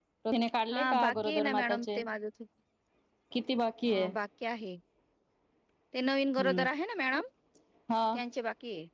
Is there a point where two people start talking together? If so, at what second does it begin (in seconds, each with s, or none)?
0.7 s